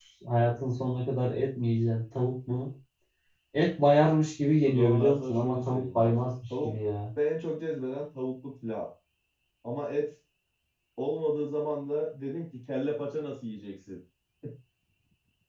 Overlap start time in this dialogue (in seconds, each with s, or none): 4.6 s